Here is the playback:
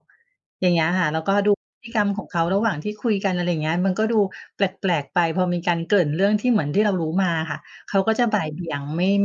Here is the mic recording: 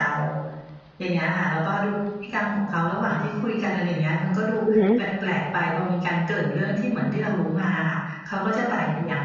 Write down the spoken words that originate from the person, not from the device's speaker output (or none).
อือฮึ